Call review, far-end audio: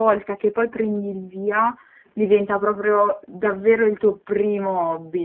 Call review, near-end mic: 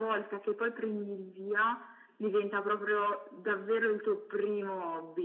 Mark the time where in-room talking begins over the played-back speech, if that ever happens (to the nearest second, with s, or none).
none